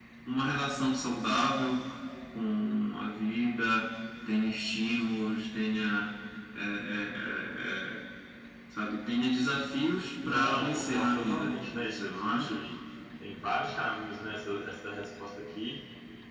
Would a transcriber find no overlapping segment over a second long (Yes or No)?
No